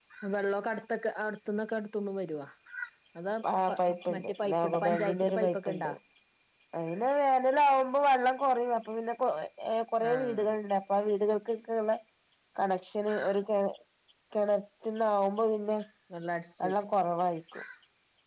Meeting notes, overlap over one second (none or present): present